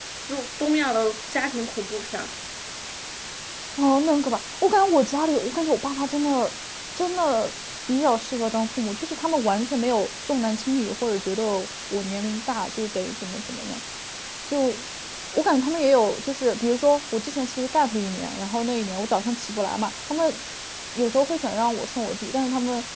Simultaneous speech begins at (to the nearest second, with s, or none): none